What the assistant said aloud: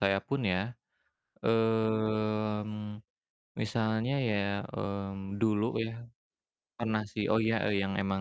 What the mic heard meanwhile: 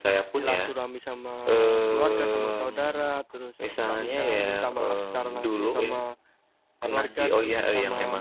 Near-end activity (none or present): present